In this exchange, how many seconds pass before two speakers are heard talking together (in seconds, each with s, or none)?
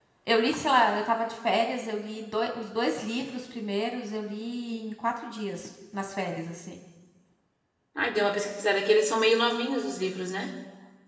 none